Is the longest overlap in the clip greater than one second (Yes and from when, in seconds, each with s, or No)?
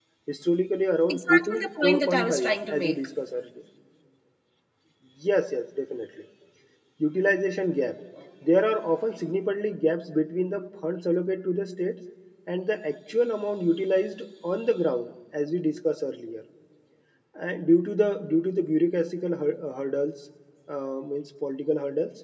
Yes, from 1.1 s